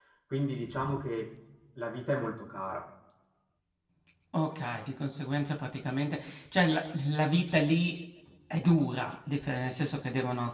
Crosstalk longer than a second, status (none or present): none